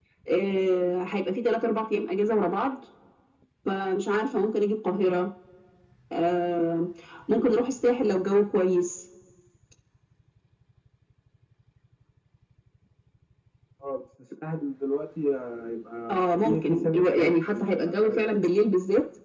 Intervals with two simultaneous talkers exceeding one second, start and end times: 16.1-18.2

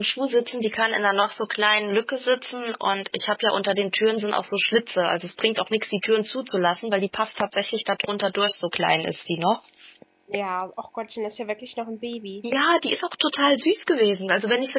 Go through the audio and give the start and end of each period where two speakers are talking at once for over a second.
none

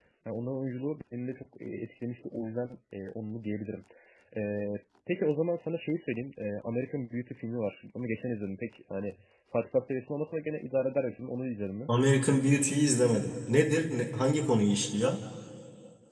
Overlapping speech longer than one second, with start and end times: none

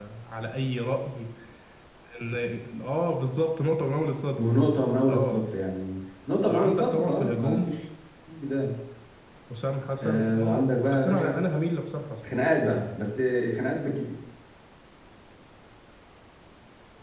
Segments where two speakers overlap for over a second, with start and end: 6.4-7.7, 10.0-11.4

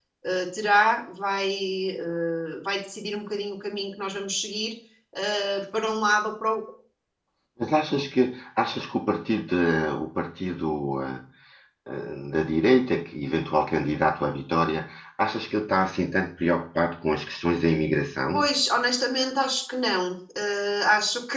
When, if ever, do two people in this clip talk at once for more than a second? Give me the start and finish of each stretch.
none

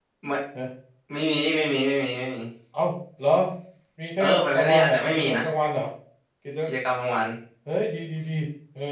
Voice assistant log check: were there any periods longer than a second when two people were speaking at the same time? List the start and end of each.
4.2-5.4

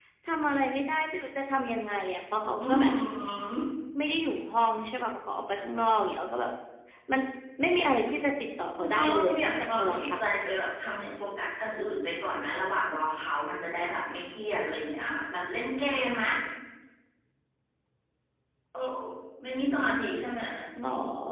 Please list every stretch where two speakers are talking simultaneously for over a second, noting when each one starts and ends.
8.7-10.2

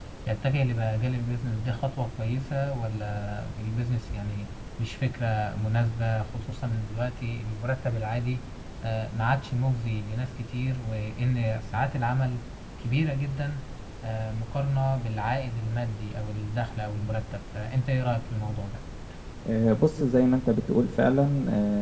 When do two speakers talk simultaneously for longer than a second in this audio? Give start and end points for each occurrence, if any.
none

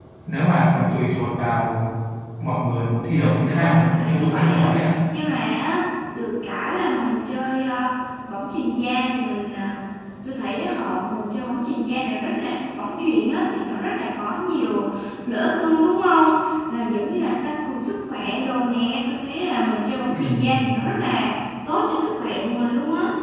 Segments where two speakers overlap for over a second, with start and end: 3.1-4.7

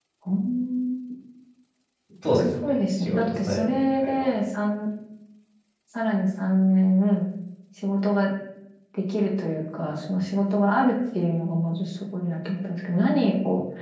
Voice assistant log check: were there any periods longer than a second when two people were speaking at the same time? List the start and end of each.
2.3-4.1

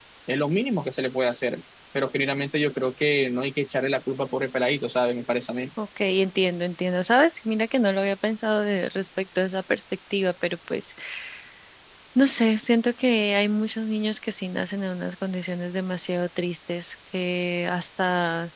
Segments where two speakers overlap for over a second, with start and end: none

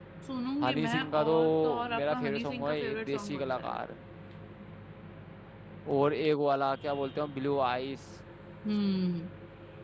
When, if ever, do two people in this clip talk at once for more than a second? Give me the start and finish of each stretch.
0.6-3.8

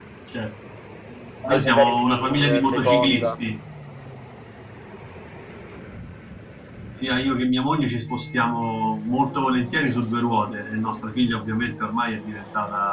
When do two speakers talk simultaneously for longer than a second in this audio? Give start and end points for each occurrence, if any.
1.4-3.4

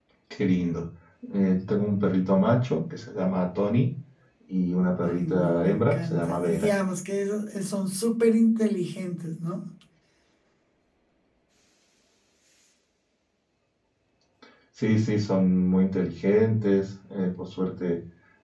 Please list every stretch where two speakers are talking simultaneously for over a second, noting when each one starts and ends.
5.1-6.7

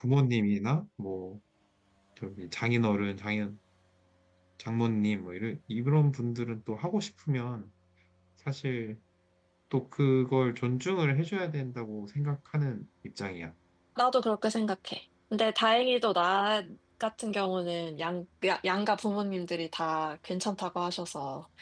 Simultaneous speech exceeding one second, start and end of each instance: none

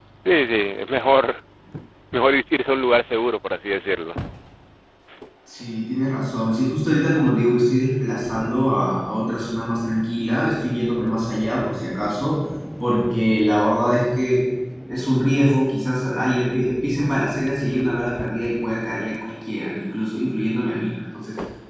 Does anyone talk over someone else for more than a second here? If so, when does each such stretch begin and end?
none

